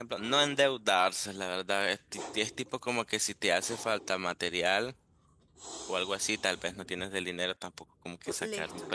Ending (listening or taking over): listening